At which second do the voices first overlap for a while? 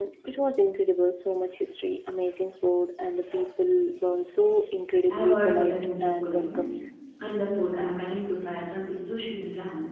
5.1 s

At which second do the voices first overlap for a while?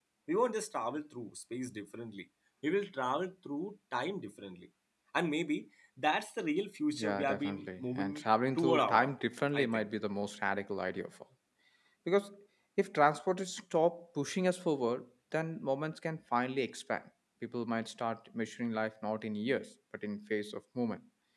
6.9 s

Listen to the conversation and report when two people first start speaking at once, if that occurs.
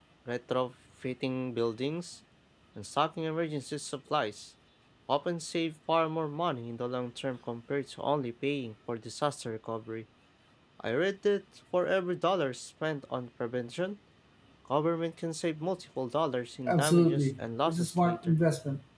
16.7 s

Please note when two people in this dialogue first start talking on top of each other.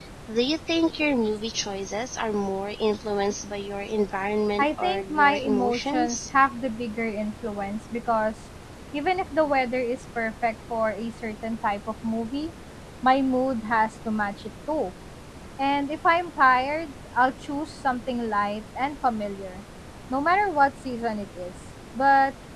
4.6 s

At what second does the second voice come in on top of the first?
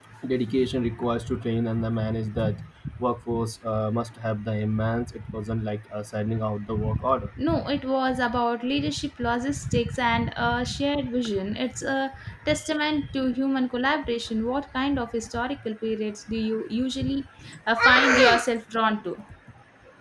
none

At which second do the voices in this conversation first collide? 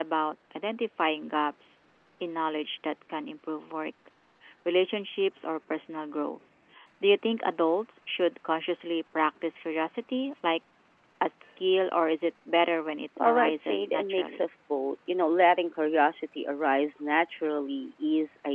13.2 s

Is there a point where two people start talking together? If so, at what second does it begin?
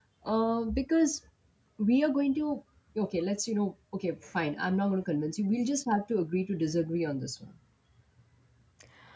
none

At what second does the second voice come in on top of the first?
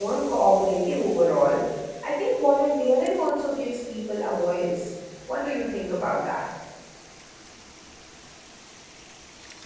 none

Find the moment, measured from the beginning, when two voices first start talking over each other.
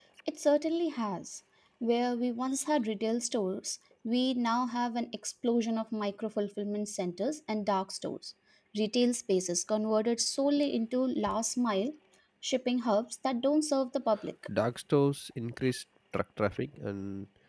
none

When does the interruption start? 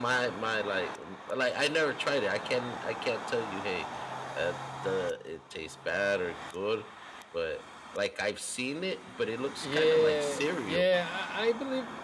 9.6 s

